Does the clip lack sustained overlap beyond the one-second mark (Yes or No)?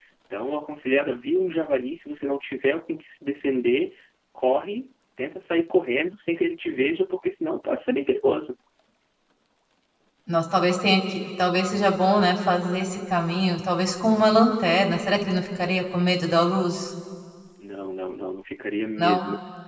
Yes